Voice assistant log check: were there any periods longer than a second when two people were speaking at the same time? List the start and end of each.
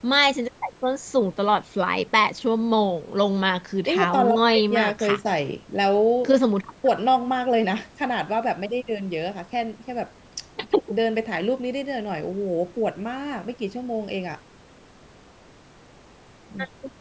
3.9-5.2

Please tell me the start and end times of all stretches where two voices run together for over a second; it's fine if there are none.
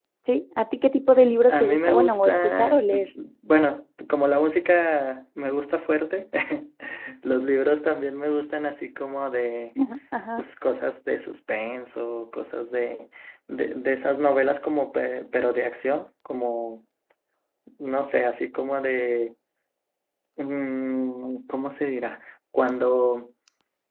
1.5-3.0

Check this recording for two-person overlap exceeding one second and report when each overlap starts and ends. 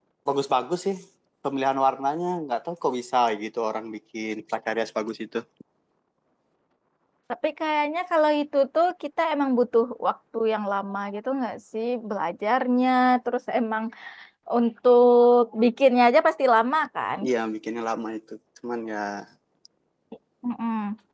none

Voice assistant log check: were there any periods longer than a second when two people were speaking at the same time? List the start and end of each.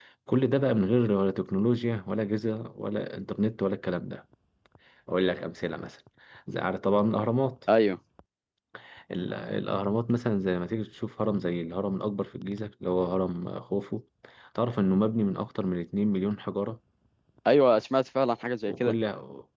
none

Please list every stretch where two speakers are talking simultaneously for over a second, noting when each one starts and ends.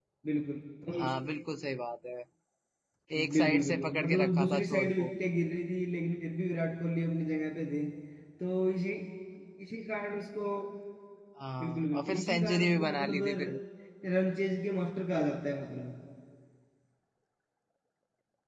3.3-5.1, 11.6-13.6

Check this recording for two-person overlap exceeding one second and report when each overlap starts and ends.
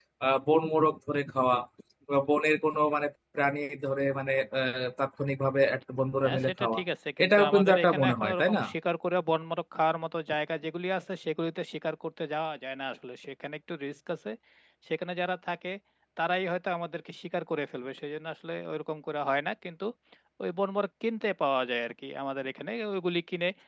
7.2-8.6

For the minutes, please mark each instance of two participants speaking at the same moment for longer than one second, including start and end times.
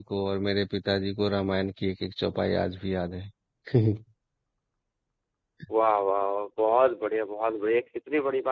none

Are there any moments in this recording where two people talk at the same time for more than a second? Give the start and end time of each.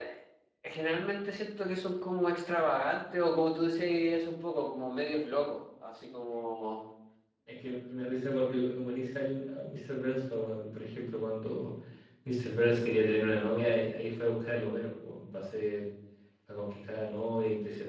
none

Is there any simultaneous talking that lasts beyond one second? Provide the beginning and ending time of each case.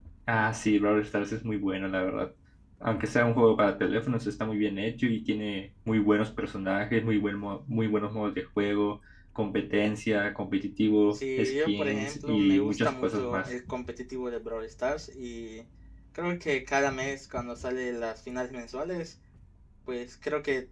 11.1-13.5

